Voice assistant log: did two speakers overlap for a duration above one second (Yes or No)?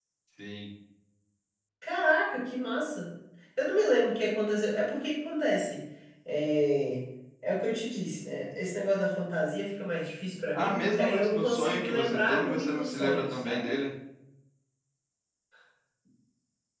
Yes